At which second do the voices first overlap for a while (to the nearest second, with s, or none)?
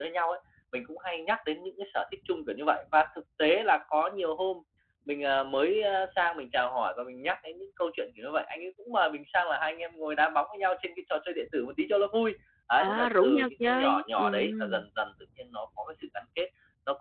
13 s